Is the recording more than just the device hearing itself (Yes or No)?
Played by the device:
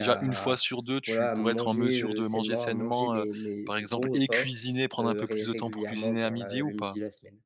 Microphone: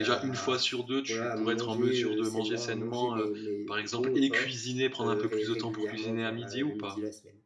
No